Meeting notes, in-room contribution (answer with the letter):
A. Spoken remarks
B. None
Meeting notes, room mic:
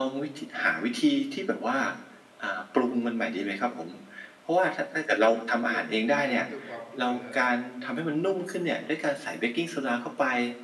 A